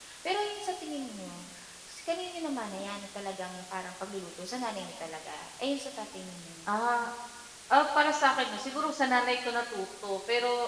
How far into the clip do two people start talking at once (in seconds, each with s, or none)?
none